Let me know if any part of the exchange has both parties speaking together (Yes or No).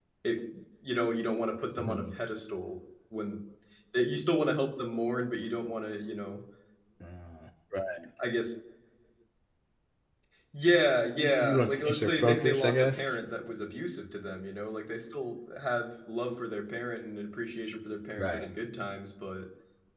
Yes